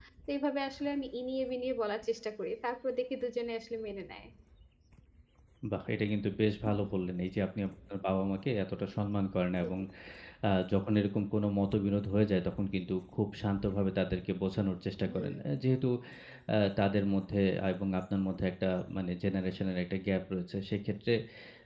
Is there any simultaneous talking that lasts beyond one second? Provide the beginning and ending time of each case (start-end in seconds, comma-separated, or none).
none